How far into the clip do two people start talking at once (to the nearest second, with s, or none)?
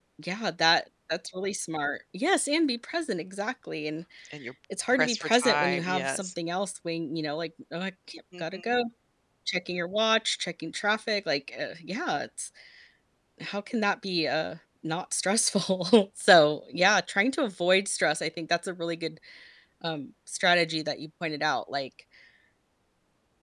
5 s